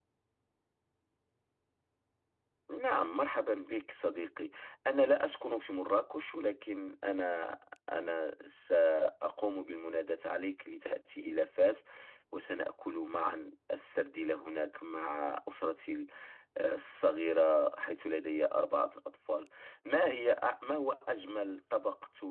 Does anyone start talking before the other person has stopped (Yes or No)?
No